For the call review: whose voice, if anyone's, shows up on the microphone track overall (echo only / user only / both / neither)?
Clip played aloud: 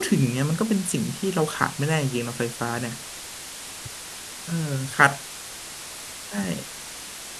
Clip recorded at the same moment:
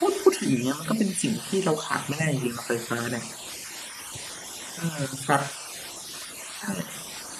echo only